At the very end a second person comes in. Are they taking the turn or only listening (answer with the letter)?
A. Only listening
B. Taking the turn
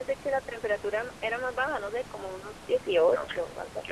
B